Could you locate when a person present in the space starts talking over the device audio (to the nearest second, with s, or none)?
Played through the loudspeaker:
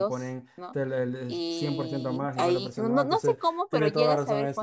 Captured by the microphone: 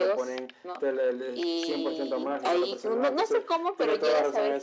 none